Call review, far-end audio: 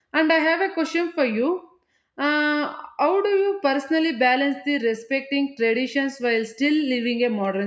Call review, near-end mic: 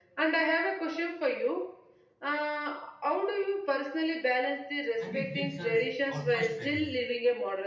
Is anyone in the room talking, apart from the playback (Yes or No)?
Yes